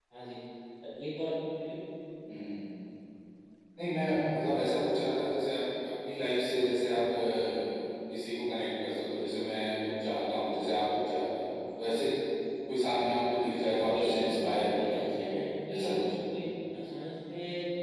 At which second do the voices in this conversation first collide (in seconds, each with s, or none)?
13.8 s